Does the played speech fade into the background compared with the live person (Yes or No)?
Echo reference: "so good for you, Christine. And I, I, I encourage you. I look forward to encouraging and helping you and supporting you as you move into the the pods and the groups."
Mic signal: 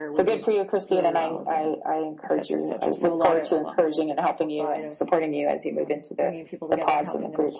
No